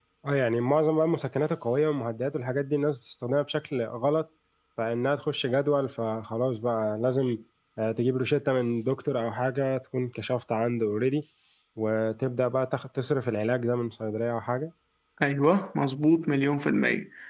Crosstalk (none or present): none